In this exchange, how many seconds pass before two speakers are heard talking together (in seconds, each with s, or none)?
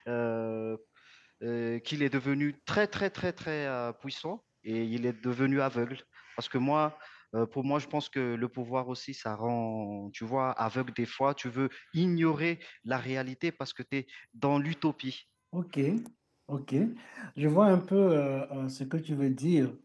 none